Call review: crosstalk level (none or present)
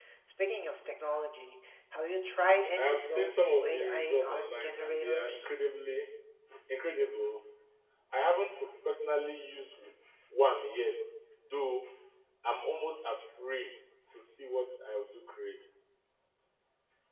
present